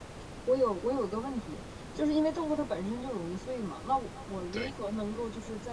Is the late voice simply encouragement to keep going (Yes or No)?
Yes